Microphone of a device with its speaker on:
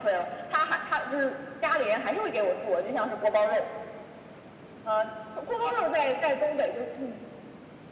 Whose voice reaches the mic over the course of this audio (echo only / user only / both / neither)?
echo only